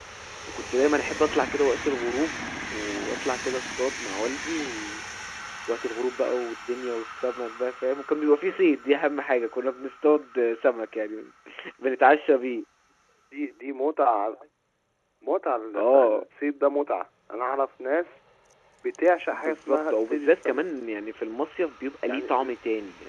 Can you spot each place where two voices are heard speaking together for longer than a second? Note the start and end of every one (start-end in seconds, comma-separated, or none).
19.3-20.6